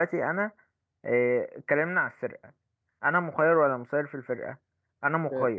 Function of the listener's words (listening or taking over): taking over